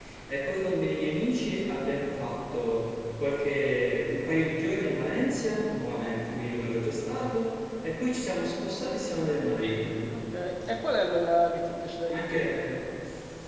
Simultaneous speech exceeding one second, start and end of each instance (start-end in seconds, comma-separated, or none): none